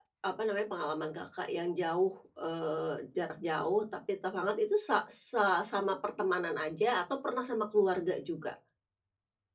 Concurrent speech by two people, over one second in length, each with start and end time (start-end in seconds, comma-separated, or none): none